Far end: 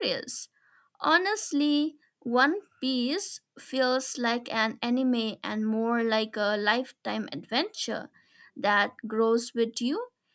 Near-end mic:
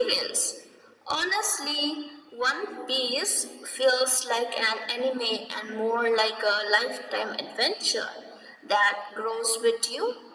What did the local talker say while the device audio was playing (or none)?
none